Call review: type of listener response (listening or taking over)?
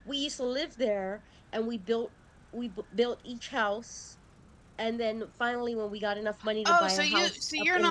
taking over